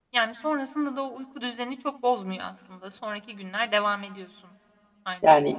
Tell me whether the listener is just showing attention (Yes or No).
No